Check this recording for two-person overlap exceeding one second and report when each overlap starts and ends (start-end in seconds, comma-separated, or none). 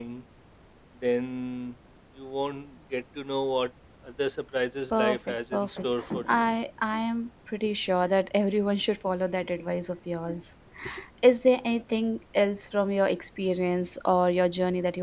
4.9-6.5